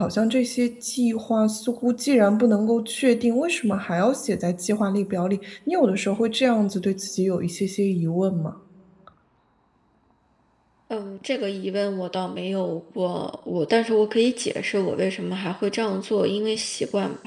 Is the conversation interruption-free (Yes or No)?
Yes